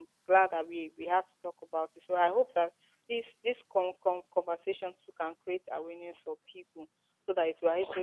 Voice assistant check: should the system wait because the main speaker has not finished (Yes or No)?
Yes